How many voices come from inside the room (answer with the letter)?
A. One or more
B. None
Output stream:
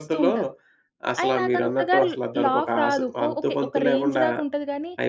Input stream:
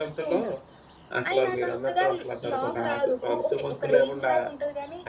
B